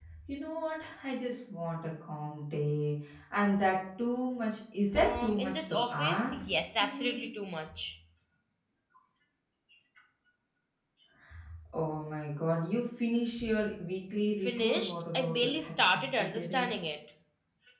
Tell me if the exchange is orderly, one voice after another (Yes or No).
No